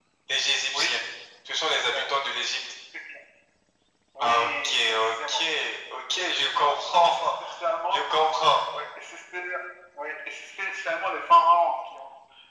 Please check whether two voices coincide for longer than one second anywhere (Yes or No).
Yes